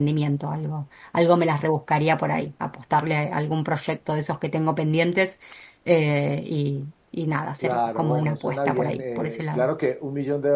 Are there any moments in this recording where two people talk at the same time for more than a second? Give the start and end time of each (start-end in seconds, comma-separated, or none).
7.6-9.7